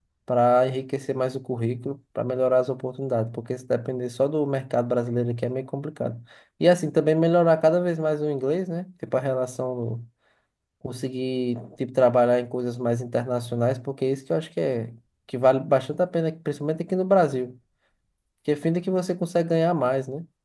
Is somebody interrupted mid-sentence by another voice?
No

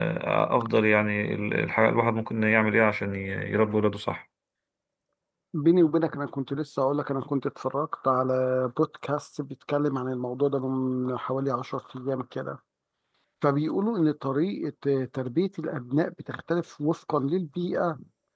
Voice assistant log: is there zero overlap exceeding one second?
Yes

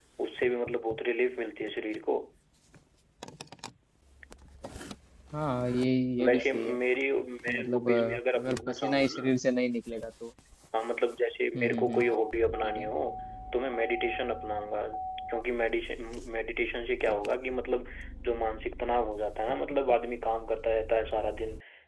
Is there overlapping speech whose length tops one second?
Yes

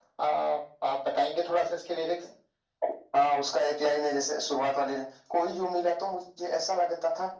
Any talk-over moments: No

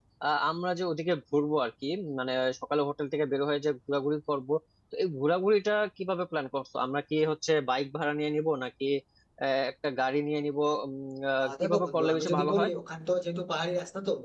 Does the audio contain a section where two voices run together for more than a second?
Yes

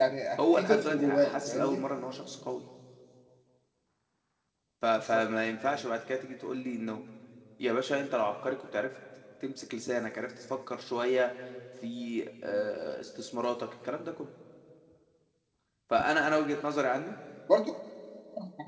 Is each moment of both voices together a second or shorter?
No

